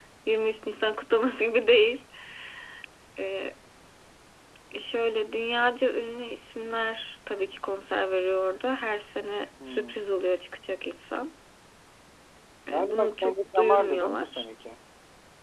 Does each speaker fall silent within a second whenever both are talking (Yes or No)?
No